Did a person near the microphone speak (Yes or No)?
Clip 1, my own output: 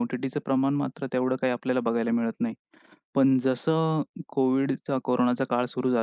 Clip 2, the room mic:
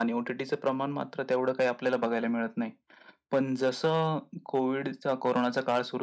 No